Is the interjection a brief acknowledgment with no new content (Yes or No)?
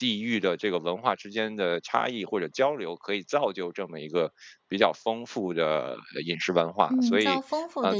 No